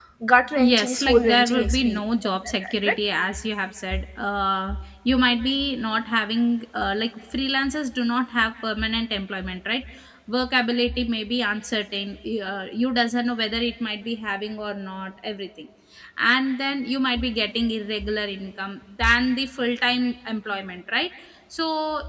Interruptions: present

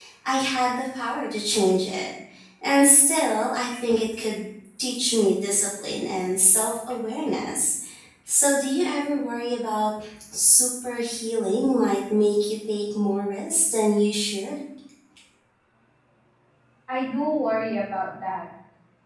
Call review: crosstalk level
none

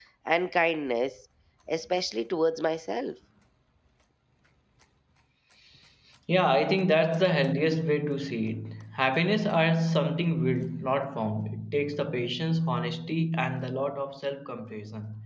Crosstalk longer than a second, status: none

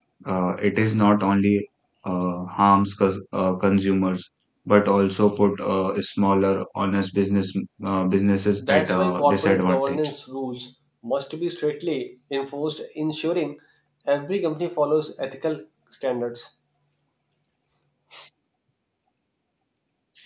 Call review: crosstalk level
present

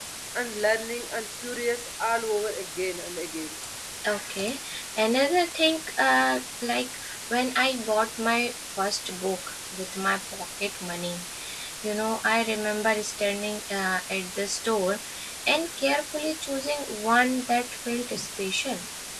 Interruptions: none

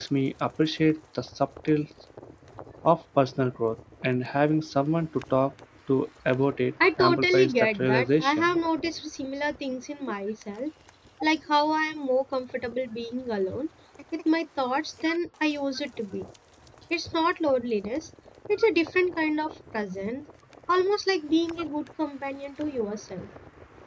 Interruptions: present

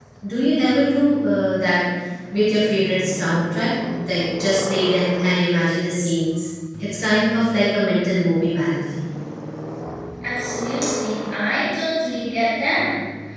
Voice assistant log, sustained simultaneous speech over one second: none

